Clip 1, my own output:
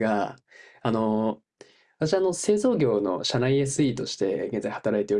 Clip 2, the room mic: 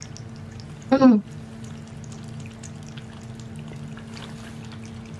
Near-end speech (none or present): present